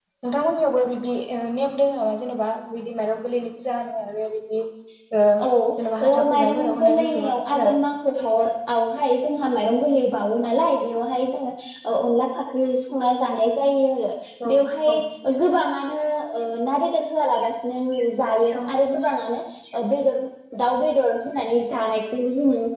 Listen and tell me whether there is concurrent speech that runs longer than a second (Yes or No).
Yes